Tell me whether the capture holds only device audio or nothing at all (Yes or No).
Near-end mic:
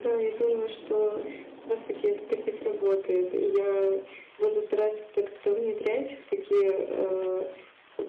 Yes